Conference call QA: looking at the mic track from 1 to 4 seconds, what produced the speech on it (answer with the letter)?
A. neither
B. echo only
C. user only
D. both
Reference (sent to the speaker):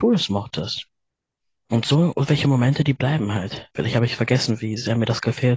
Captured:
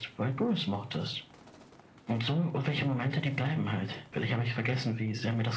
B